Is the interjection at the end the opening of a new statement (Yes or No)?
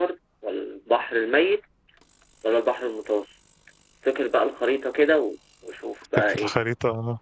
Yes